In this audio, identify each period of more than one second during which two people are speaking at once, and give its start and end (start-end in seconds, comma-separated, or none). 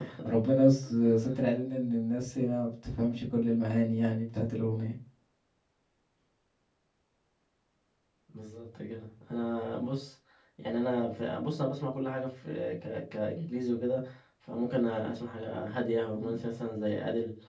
none